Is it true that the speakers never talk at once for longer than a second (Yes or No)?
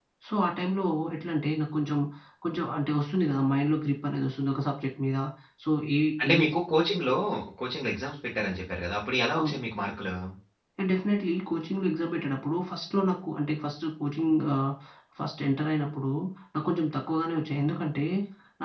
Yes